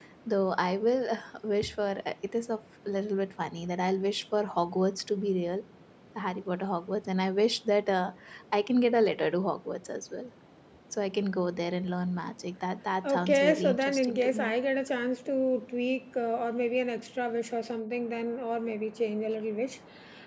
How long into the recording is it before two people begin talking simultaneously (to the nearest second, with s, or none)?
13 s